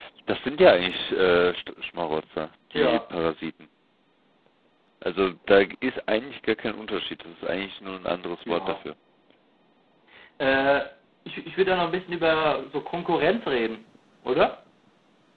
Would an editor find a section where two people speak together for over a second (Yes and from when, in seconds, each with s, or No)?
No